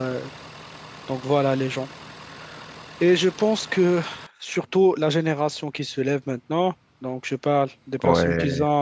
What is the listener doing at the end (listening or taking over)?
listening